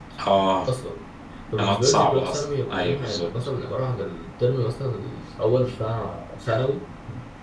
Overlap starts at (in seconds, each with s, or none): 1.6 s